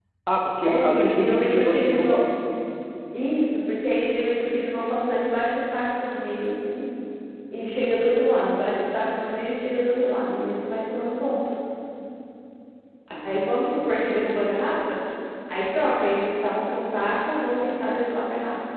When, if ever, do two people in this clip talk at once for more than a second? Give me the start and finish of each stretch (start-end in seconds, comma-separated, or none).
0.6-2.3